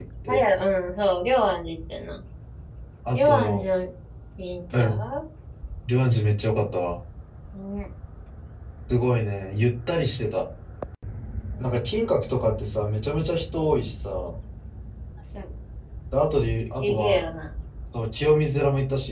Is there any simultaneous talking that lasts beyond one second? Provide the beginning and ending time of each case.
none

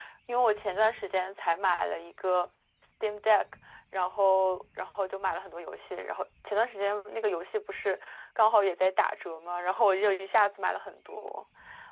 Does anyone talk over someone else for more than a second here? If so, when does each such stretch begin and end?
none

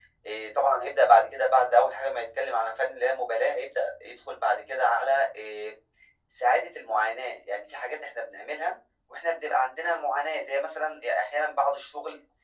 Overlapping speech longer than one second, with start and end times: none

